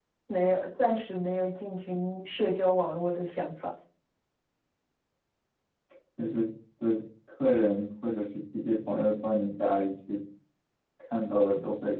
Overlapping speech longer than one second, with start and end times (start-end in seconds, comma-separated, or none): none